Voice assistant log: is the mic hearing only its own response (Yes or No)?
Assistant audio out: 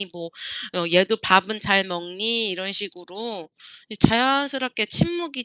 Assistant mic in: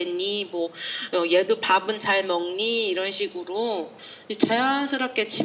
Yes